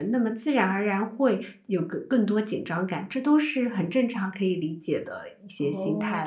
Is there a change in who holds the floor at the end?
Yes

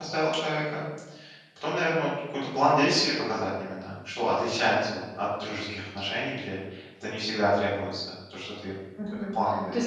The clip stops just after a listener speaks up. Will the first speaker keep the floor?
No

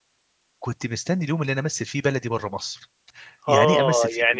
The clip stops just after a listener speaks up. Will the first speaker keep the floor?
No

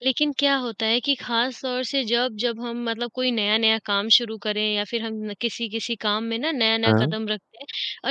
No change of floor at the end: Yes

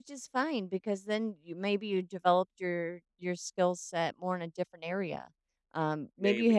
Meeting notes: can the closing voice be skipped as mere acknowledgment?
Yes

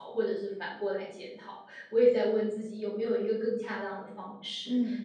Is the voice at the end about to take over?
No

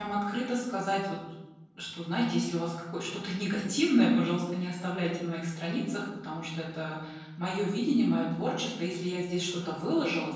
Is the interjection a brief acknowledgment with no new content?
Yes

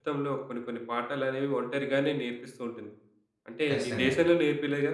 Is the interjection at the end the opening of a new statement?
No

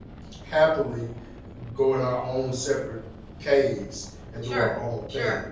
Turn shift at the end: Yes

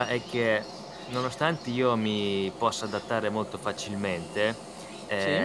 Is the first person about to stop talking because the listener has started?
No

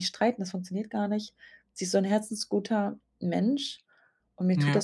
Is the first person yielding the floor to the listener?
No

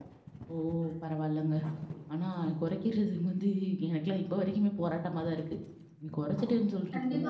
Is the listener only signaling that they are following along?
No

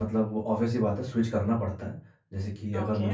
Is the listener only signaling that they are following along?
Yes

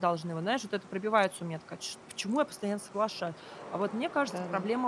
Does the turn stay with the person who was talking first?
Yes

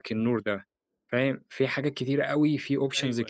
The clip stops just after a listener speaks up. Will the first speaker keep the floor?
Yes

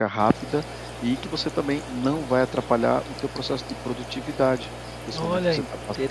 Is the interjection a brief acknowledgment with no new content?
No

